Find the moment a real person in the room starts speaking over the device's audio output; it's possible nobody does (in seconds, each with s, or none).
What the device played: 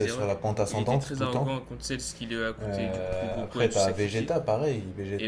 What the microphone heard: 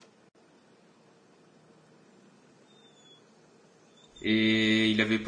4.2 s